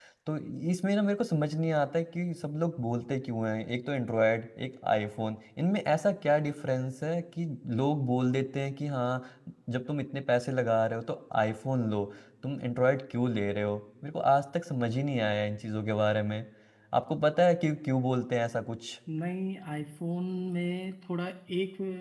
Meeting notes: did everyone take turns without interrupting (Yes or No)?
Yes